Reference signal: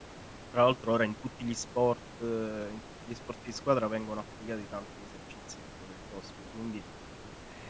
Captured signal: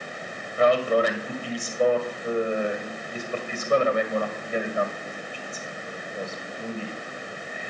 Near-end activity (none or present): none